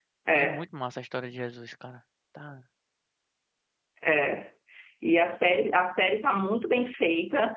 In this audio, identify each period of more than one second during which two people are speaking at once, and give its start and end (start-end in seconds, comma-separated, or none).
none